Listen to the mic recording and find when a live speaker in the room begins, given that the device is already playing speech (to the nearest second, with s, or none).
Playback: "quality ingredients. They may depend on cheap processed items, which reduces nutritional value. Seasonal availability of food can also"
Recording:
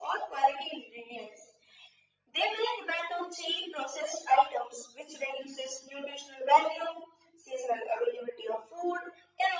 none